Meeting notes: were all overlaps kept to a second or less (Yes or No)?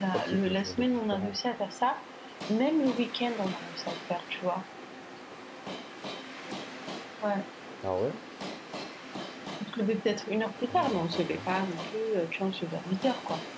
No